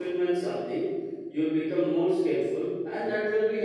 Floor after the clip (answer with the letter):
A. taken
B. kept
B